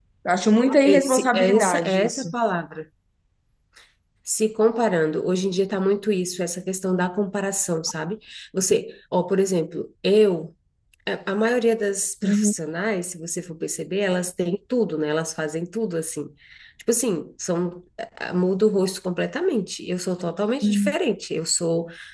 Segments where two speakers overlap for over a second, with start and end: 0.8-2.3

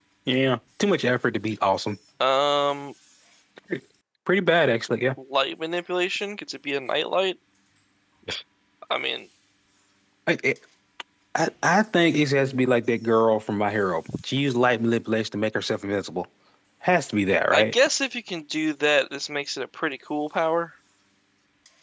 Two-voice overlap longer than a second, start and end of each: none

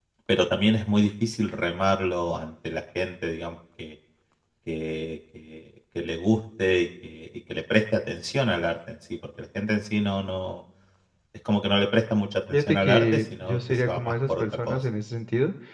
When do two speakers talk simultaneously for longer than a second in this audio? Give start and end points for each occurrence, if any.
12.5-14.8

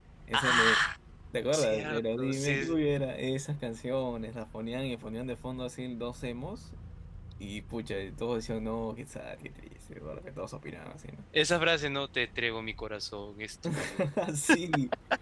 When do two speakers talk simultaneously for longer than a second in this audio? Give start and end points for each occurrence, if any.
1.5-2.8

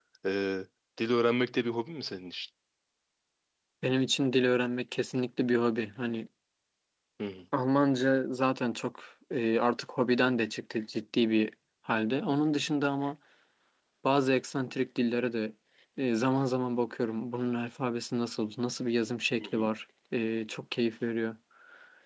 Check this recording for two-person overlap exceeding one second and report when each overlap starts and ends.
none

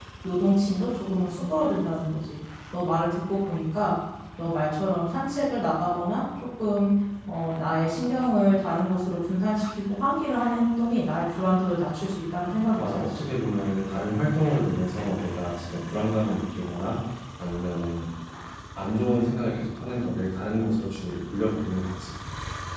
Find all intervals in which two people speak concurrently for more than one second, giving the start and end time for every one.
none

